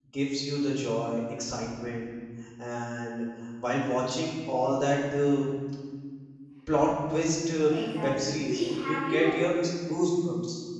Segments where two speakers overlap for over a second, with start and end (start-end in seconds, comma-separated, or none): 8.0-9.3